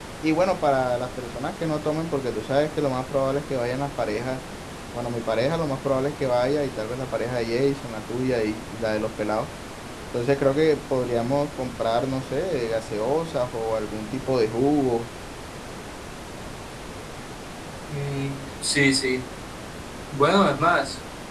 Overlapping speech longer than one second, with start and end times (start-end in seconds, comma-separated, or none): none